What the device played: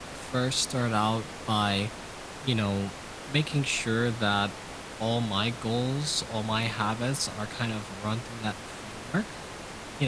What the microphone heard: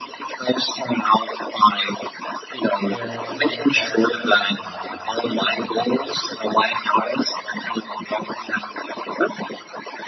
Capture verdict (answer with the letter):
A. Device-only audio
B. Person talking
B